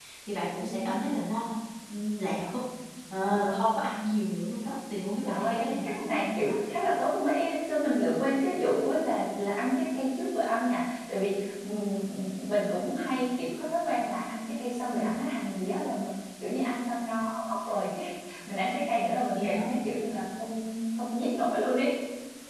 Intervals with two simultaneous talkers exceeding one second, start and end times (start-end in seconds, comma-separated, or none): 5.2-6.5